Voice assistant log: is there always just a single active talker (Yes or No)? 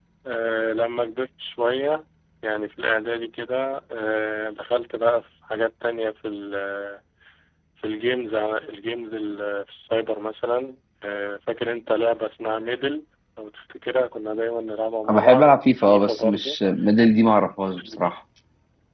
No